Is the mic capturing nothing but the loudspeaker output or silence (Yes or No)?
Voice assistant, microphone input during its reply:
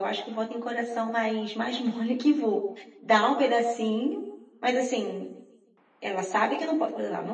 Yes